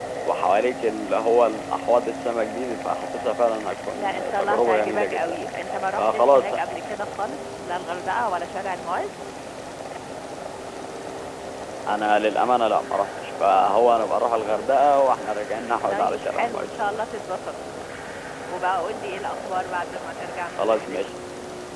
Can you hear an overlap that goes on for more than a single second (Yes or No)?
Yes